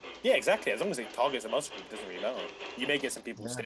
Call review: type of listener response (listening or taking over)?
listening